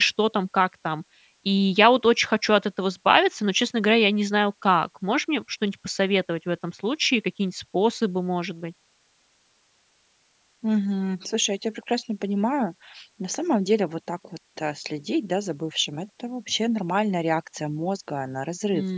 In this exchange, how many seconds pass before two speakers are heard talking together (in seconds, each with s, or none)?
none